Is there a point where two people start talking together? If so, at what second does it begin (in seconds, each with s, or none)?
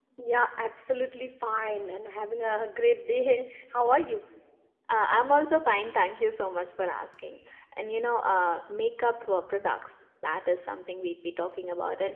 none